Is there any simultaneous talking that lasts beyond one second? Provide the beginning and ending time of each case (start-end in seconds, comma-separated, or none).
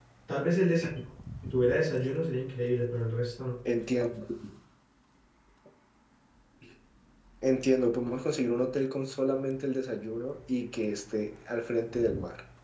none